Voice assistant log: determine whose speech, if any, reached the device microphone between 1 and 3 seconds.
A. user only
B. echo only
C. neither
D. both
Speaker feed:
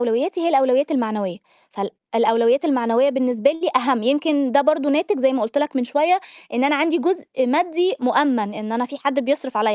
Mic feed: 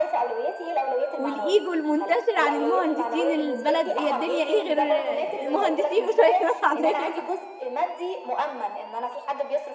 D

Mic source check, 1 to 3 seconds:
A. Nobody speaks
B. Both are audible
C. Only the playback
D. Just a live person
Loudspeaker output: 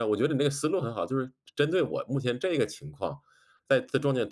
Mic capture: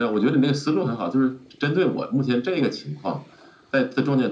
C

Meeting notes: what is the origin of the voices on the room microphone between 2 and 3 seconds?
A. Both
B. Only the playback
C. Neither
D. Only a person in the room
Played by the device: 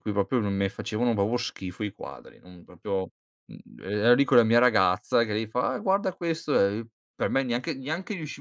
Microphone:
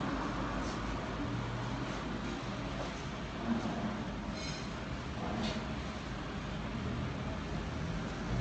C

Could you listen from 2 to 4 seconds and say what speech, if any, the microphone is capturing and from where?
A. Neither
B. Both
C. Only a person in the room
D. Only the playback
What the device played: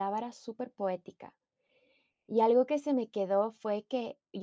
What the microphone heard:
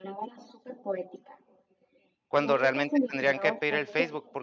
B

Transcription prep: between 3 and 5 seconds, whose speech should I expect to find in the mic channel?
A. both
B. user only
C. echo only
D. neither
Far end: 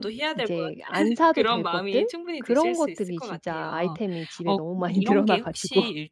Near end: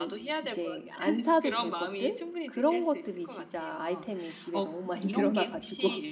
C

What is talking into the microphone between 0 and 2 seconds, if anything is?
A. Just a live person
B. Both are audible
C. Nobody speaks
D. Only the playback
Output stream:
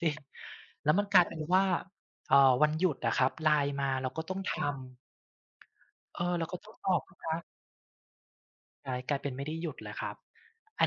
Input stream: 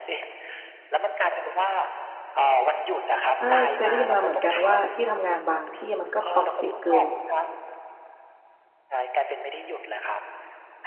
D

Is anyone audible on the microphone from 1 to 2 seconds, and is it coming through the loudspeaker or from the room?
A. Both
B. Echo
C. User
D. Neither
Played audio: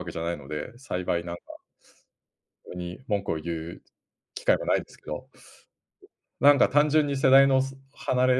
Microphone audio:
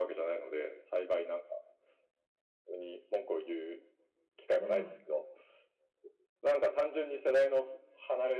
B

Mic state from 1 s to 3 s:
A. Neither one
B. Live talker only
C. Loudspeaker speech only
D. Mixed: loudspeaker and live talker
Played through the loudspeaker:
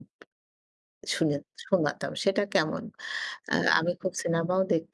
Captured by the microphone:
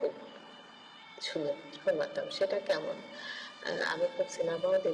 C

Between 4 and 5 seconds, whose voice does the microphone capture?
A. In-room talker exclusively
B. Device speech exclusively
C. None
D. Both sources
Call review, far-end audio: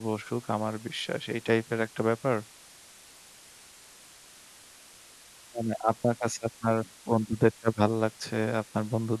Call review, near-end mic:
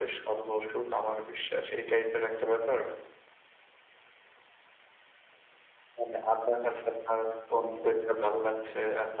C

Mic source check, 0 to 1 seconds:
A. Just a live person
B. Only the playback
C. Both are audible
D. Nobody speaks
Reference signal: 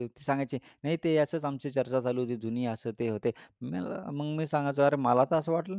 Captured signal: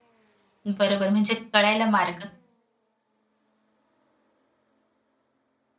A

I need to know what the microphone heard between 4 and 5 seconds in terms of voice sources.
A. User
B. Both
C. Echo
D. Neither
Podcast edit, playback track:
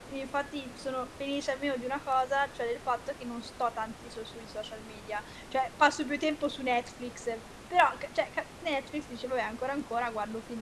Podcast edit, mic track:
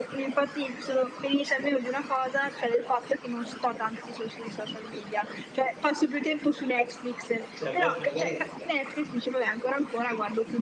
C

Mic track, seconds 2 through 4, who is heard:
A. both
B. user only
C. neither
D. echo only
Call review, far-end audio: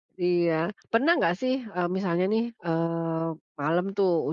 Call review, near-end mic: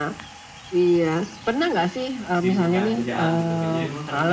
A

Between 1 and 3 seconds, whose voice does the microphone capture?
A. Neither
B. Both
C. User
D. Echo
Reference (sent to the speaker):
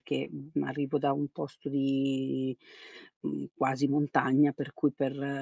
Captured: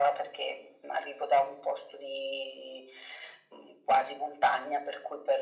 D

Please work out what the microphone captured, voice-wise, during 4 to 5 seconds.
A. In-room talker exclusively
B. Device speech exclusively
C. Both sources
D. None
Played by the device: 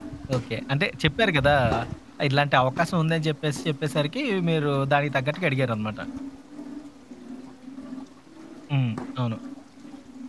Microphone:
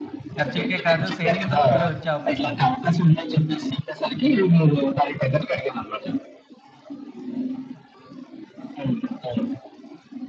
B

